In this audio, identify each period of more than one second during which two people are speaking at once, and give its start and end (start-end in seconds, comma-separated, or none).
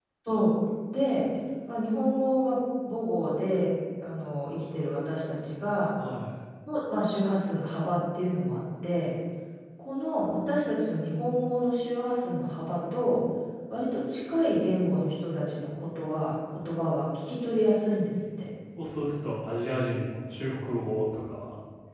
none